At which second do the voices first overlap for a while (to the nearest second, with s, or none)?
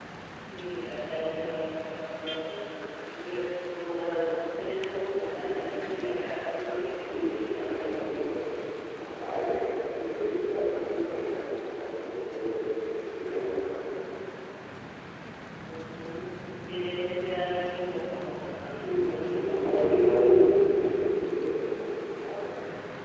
7 s